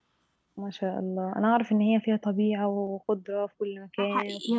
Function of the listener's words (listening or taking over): taking over